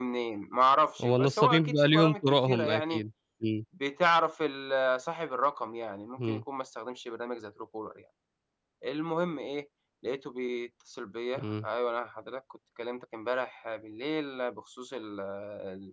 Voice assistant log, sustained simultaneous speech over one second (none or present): present